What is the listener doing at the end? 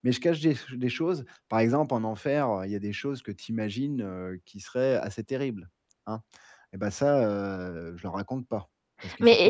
taking over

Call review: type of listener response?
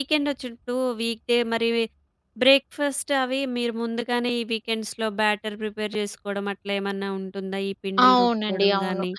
taking over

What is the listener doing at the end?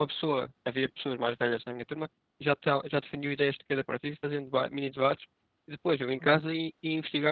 listening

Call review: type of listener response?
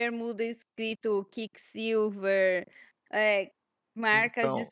taking over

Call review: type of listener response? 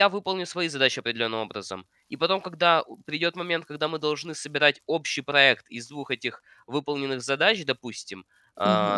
listening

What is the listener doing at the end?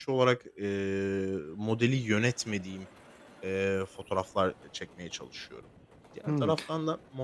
listening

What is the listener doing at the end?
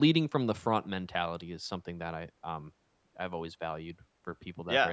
taking over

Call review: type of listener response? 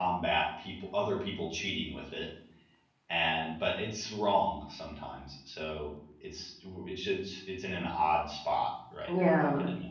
taking over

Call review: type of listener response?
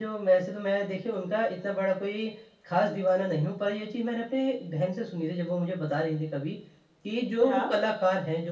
listening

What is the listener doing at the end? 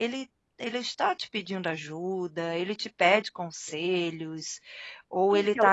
taking over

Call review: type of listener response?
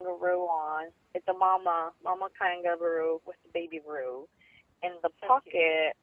listening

